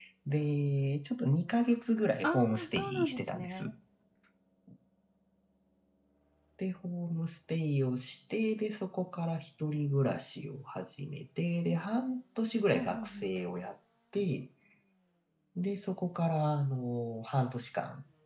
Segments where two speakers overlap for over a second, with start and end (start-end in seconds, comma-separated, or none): 2.2-3.7